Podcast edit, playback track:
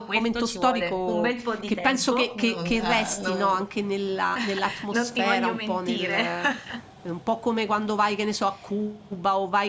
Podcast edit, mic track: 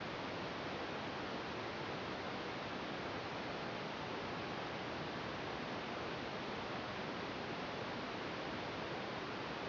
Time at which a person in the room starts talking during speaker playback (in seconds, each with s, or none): none